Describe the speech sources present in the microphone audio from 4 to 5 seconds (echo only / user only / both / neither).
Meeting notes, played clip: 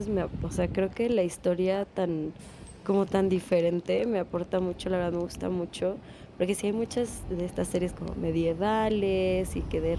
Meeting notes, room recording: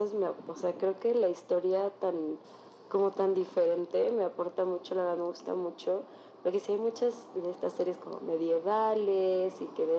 echo only